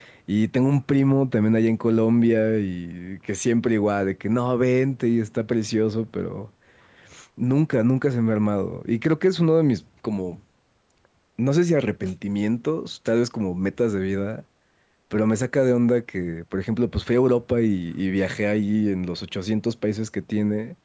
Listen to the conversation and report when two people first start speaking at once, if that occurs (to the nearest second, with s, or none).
none